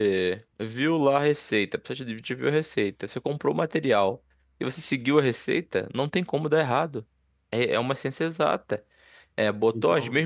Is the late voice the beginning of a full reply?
No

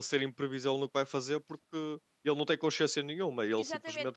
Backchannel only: No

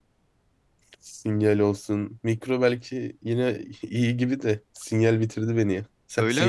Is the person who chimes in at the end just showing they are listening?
No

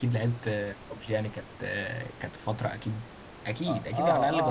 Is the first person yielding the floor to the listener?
Yes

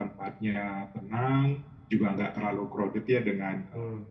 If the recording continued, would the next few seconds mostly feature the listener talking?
No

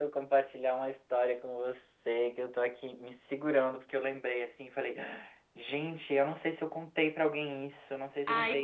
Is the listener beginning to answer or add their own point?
Yes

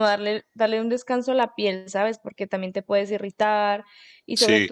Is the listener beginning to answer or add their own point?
No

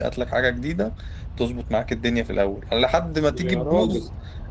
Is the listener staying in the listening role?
Yes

